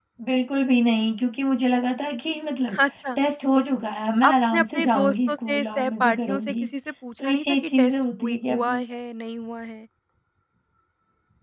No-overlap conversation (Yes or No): No